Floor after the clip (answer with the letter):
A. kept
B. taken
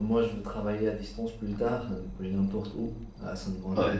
A